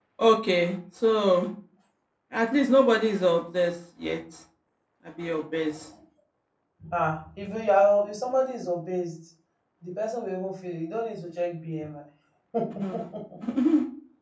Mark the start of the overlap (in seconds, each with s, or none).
none